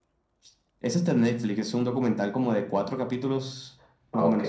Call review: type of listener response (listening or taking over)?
taking over